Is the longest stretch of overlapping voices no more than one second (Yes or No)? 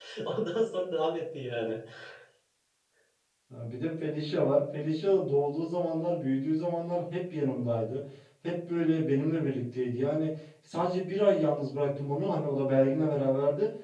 Yes